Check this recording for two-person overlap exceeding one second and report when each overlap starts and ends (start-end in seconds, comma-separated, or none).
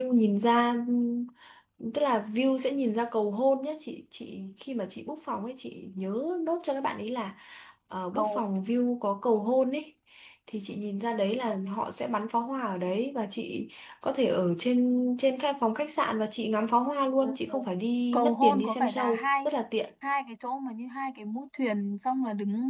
18.1-19.5